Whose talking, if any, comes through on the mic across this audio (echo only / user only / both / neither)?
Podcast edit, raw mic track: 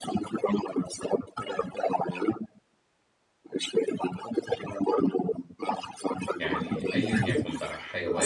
both